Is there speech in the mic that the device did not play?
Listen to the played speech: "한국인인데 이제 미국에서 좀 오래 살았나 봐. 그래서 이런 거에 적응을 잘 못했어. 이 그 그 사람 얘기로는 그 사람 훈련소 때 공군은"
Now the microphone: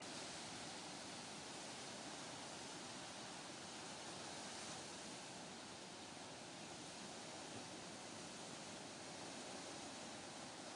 No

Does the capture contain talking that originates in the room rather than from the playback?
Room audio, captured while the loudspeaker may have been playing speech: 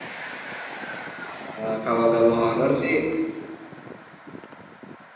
Yes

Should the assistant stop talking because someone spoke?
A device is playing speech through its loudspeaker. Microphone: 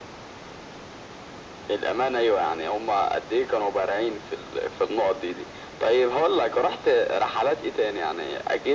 No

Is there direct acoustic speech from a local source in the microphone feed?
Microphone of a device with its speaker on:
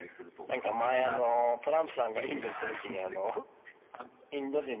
No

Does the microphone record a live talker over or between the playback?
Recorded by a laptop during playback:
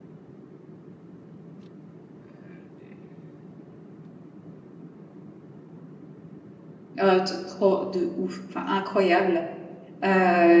Yes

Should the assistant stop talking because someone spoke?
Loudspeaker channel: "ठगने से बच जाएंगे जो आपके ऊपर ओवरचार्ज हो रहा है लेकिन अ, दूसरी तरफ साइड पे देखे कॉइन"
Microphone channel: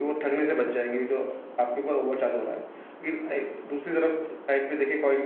No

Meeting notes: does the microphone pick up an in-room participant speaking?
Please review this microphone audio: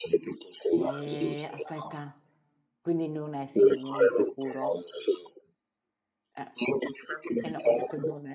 Yes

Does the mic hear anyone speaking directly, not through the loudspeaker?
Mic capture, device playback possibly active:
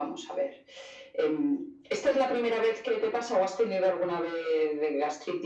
No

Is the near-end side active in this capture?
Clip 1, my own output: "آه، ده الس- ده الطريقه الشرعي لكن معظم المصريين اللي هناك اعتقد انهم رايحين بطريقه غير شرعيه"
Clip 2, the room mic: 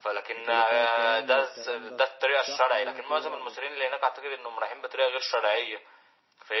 Yes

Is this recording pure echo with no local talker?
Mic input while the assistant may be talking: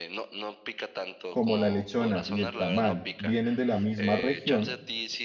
No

